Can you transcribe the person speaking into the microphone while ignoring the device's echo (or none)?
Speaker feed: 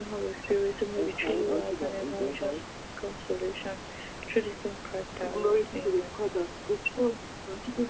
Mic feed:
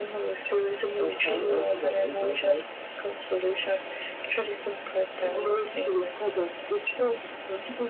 none